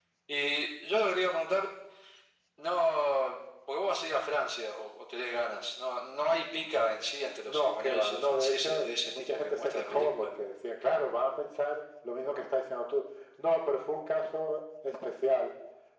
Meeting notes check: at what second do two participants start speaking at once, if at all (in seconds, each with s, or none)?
7.4 s